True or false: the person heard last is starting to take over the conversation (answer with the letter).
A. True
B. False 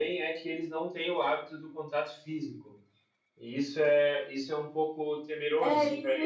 A